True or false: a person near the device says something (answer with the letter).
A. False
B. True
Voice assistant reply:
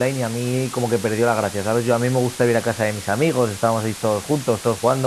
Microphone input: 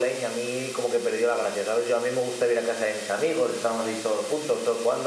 A